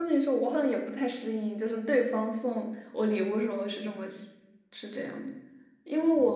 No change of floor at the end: Yes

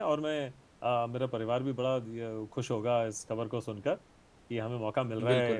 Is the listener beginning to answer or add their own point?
No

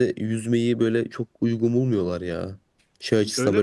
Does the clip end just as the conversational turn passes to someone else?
No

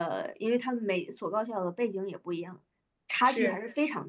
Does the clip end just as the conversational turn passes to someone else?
No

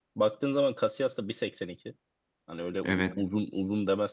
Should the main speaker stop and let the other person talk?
No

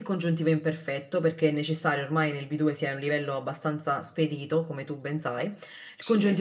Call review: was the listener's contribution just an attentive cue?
Yes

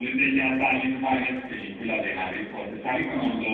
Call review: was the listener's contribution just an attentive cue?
Yes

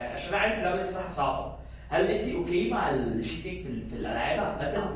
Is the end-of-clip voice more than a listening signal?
Yes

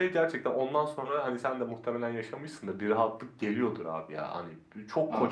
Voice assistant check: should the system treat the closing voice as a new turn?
No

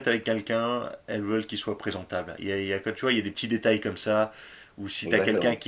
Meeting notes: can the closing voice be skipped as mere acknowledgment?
Yes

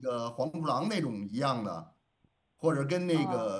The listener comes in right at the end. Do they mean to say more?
No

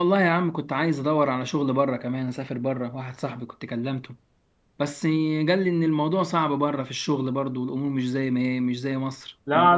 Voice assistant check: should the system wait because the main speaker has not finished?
No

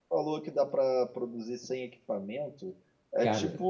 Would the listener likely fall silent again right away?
Yes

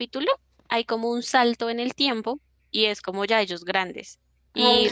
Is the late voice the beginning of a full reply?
No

